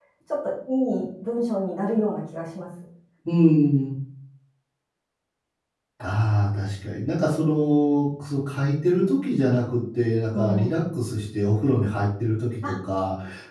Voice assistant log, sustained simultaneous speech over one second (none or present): none